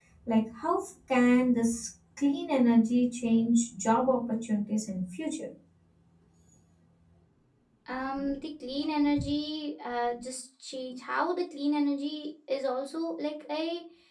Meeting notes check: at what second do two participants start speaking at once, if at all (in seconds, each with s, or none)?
none